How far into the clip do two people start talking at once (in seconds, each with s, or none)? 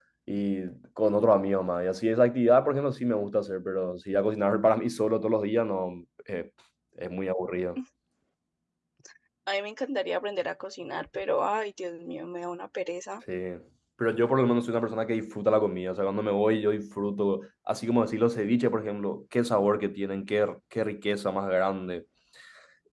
none